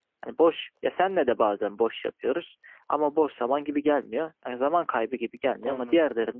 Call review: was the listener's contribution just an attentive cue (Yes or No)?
Yes